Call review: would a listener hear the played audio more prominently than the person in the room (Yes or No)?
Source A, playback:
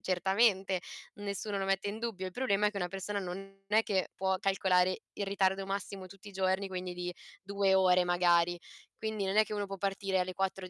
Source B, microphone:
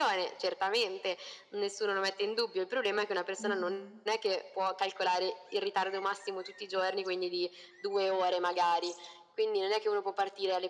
Yes